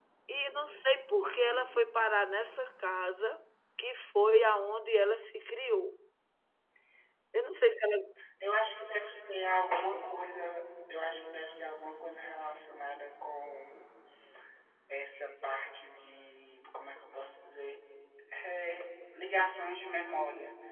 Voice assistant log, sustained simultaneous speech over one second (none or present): none